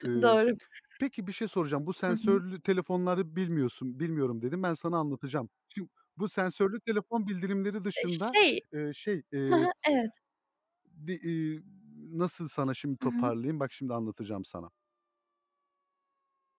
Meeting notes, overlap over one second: none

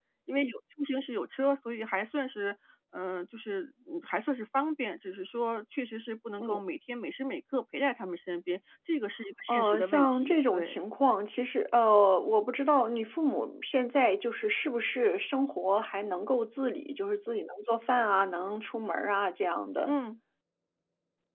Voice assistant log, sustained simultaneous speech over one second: present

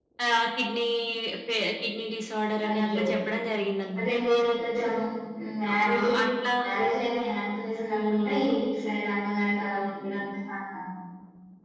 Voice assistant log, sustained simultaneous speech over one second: none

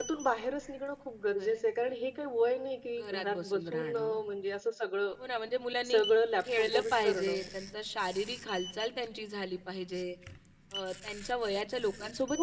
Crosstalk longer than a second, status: present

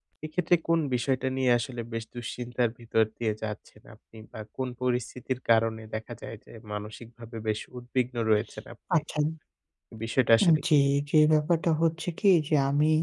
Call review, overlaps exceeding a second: none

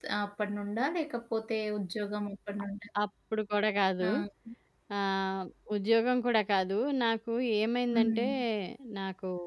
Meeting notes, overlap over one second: none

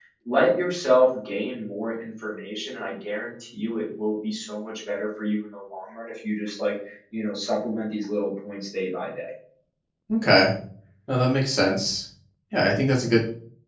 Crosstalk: none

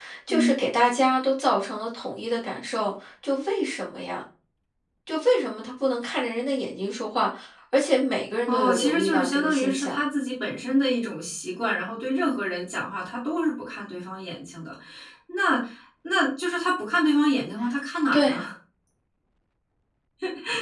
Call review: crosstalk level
present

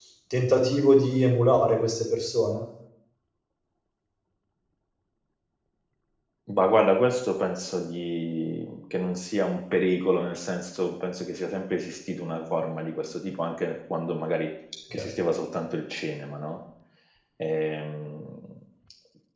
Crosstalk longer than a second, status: none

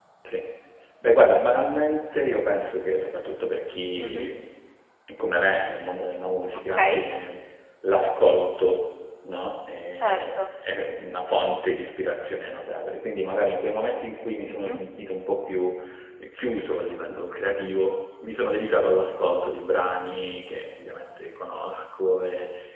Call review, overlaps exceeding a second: none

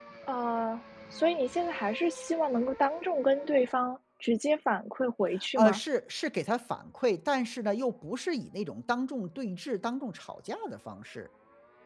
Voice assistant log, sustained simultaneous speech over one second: none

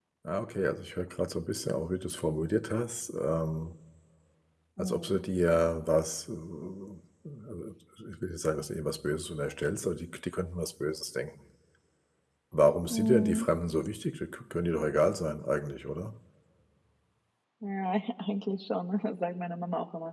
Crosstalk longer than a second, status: none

